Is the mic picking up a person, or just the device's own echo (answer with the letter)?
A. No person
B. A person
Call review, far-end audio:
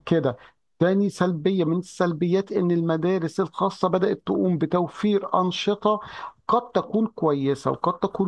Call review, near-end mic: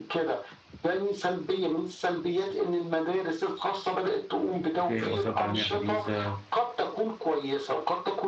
B